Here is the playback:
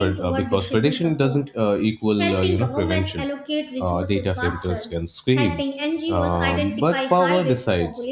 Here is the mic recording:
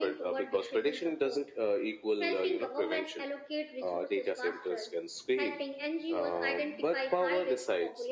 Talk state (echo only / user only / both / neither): echo only